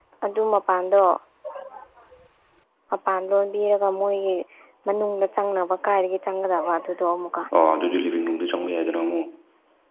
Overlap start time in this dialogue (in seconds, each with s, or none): none